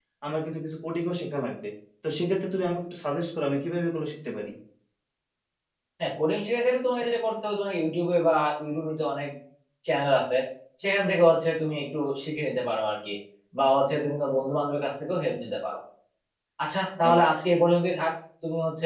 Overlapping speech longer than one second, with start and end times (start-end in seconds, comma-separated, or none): none